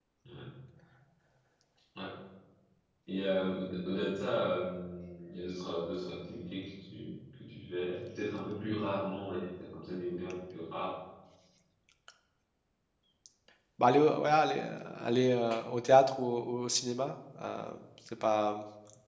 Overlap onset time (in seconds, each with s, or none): none